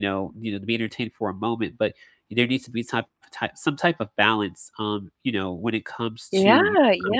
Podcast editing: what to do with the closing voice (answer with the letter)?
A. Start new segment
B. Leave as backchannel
A